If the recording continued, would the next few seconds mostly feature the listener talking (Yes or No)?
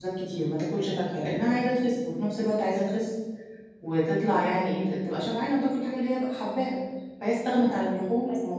No